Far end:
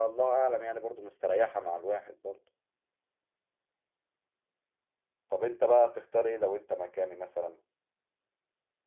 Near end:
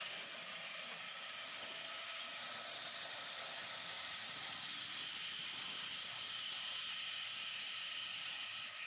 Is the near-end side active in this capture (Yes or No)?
No